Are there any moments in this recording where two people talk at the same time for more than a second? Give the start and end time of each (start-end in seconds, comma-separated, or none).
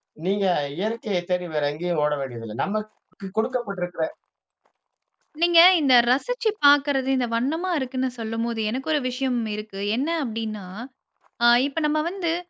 none